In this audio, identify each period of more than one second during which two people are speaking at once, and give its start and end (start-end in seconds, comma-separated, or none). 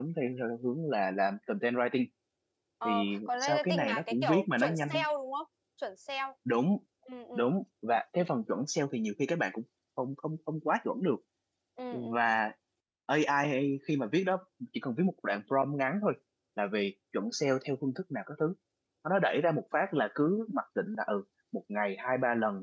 2.9-5.0